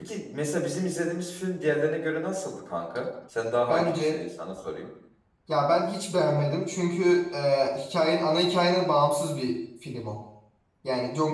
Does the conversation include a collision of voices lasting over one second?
No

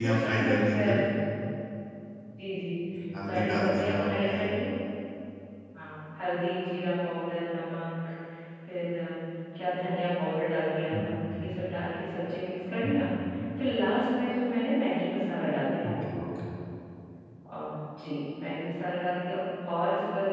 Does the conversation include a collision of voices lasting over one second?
Yes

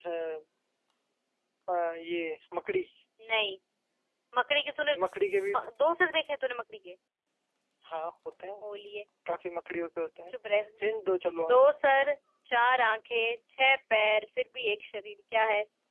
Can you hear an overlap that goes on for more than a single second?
No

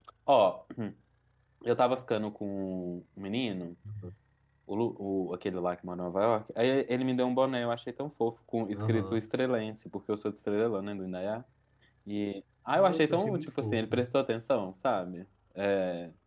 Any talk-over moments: Yes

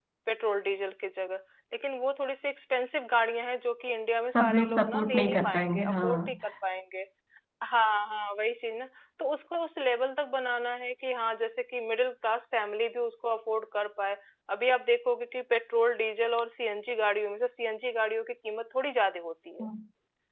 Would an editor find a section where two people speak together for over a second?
Yes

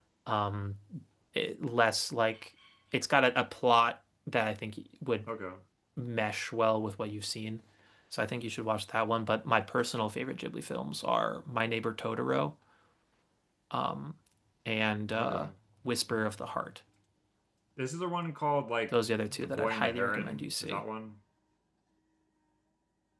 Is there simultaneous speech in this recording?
Yes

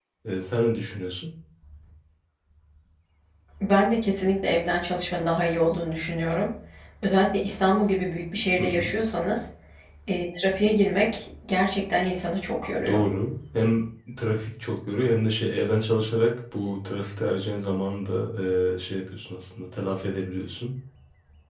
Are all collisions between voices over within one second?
Yes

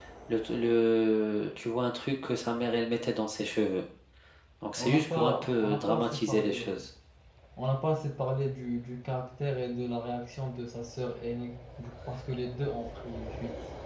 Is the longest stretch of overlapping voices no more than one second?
No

